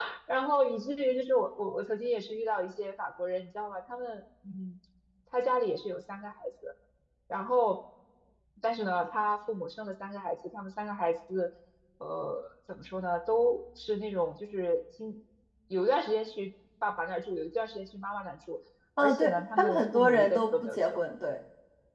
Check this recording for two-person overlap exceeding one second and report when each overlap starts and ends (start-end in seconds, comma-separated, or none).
19.0-21.2